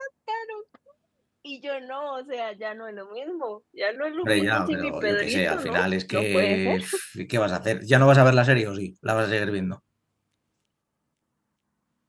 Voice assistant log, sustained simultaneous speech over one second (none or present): present